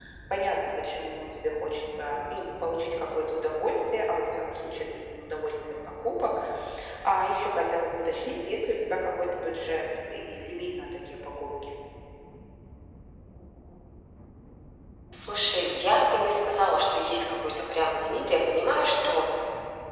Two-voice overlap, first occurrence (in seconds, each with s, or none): none